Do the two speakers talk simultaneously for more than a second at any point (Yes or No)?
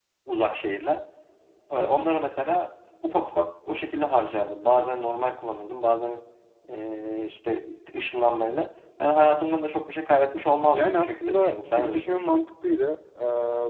Yes